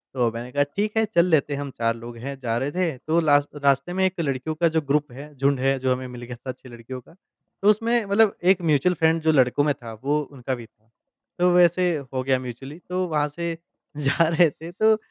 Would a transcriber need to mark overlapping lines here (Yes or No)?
No